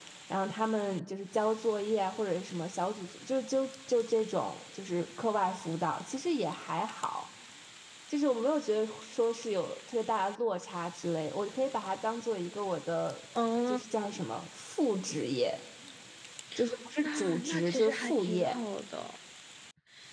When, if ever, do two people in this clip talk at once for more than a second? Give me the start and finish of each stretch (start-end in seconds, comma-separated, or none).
17.0-18.6